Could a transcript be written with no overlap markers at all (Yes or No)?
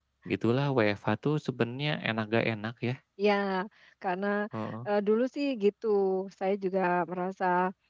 Yes